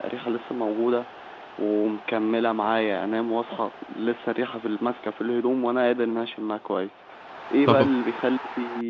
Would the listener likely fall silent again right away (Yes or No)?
Yes